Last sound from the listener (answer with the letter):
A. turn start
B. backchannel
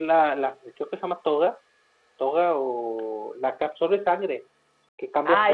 A